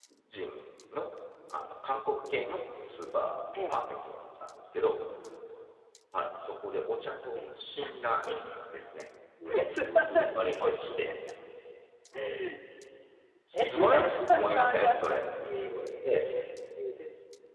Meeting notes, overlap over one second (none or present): present